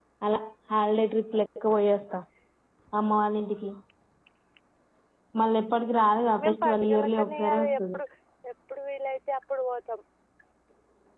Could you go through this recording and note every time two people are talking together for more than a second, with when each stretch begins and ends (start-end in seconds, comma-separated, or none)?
6.4-8.0